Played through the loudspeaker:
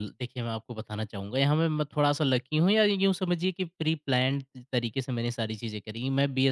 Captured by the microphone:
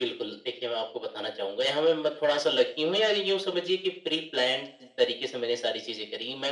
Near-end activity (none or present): none